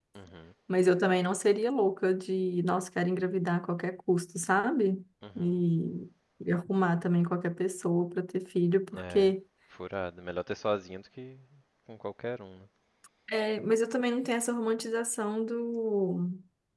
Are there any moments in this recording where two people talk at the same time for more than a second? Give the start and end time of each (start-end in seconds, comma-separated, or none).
none